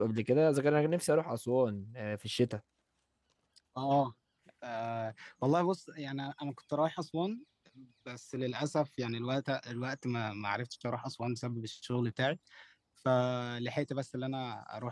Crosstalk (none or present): none